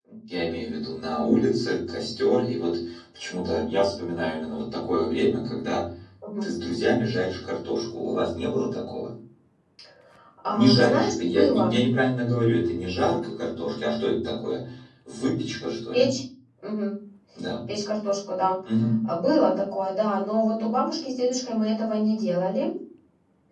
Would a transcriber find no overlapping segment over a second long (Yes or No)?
No